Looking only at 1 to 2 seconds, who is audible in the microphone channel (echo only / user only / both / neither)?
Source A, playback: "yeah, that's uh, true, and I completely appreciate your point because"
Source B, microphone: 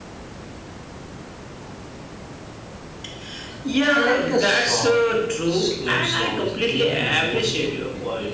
neither